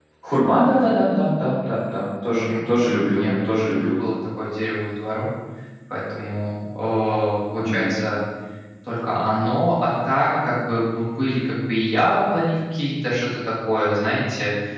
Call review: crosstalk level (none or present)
present